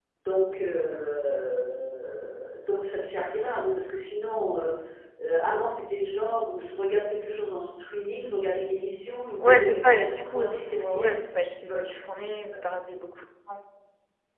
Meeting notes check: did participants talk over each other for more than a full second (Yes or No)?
Yes